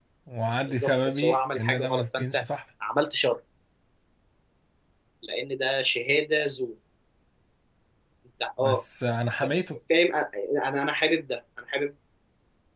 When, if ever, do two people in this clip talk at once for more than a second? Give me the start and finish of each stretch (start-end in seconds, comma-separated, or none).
0.7-2.4